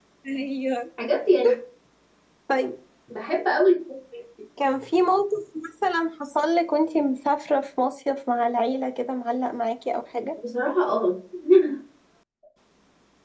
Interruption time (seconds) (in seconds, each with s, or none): none